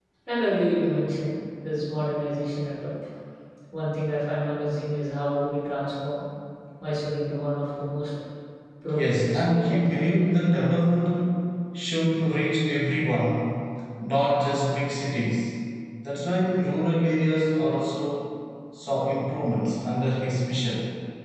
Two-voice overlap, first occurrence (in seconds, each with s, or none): 8.9 s